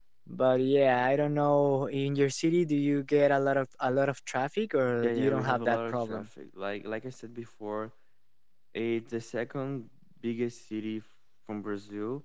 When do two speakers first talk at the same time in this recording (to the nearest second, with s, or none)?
5 s